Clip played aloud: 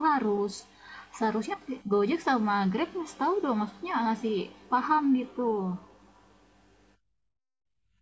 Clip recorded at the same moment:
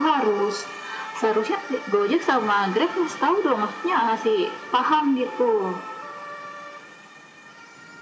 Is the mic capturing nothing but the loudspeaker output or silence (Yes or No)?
Yes